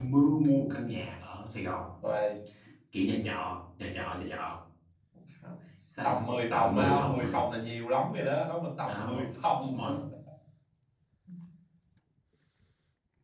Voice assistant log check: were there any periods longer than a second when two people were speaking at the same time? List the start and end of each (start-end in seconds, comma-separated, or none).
6.0-7.3